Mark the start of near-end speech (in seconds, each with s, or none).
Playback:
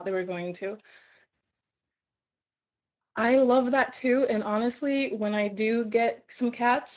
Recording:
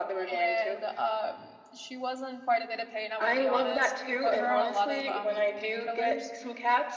0.3 s